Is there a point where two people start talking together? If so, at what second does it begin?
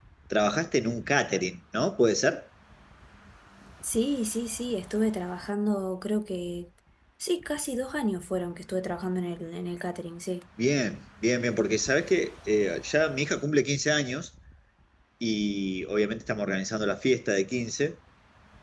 none

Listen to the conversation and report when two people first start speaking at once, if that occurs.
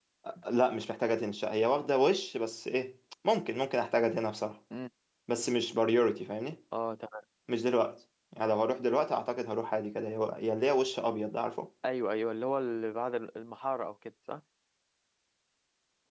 none

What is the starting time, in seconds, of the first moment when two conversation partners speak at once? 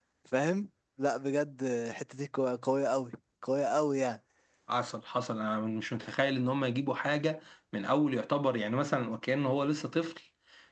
none

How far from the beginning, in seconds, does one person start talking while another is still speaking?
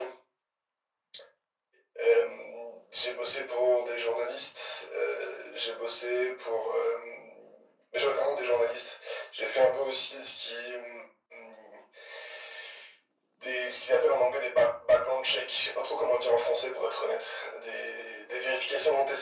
none

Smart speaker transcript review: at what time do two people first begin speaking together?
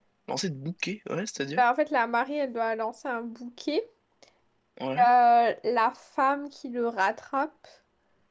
none

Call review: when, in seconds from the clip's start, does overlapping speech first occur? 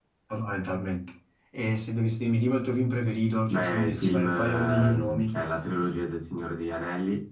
3.5 s

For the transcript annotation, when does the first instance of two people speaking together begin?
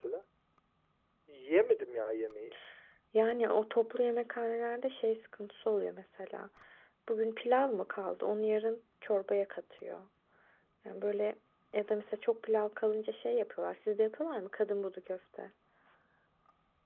none

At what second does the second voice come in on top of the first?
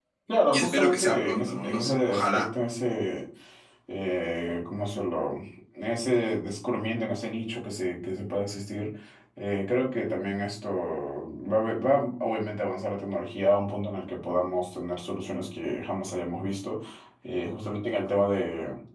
0.5 s

